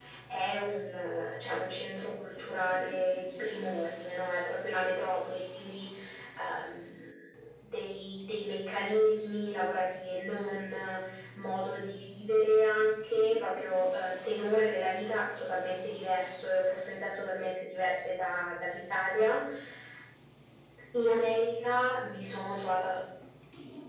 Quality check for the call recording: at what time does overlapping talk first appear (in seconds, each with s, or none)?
none